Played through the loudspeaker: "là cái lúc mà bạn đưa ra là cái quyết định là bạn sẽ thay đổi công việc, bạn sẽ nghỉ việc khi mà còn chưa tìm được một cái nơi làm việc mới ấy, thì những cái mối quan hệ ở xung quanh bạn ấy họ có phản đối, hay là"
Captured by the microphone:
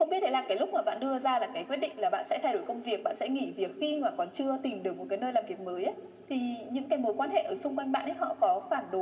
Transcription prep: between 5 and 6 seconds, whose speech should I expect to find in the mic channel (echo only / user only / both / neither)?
echo only